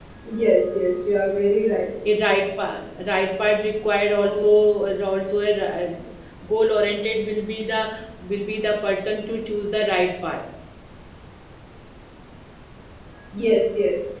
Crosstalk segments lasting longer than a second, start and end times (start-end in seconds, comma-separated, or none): none